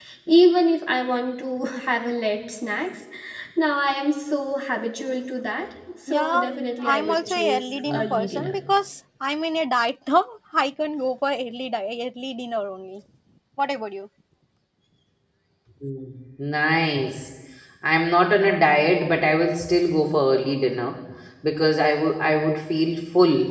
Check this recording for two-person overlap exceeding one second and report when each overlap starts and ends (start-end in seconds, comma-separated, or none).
6.1-8.6